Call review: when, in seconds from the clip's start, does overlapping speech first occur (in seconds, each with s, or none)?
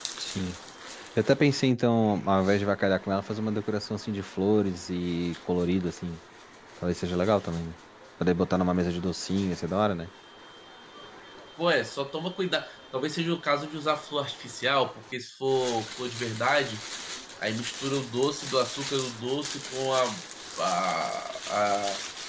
none